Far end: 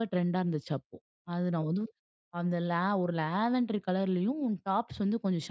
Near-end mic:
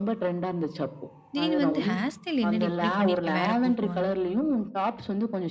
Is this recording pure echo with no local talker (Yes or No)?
No